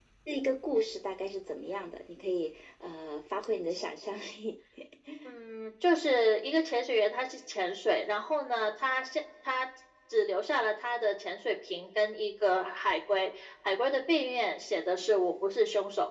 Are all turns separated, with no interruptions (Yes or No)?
Yes